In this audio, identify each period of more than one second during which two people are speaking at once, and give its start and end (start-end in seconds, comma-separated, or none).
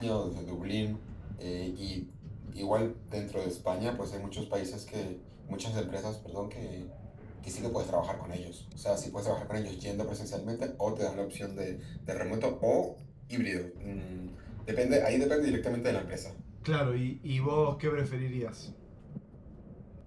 none